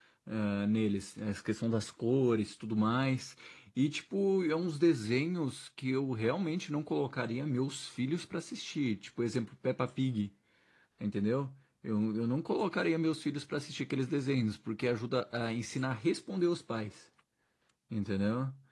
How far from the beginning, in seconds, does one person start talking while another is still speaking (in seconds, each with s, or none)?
none